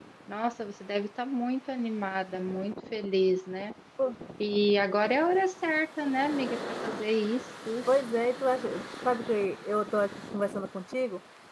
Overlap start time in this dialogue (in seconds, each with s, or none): none